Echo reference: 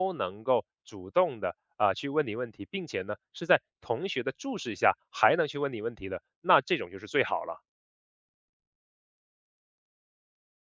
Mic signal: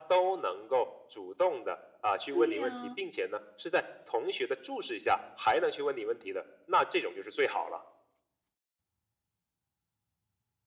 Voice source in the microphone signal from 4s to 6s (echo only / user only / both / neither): echo only